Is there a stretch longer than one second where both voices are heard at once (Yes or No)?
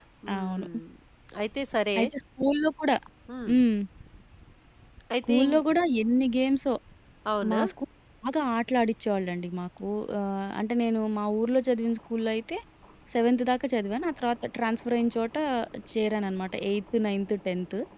No